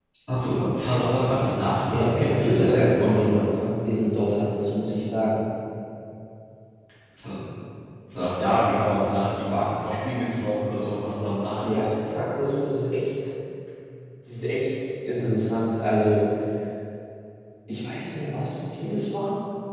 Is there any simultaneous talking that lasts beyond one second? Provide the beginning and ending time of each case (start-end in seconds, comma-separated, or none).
1.9-3.5